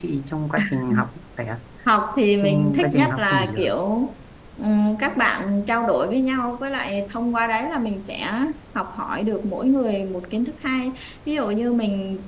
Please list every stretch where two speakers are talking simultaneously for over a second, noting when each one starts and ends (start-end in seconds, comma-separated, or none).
2.4-3.7